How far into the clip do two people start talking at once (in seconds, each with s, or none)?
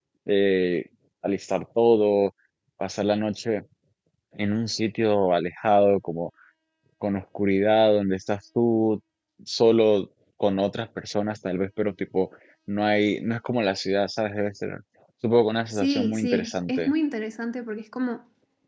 15.7 s